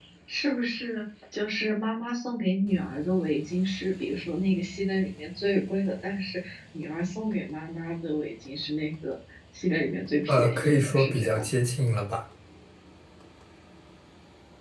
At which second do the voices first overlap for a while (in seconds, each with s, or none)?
10.3 s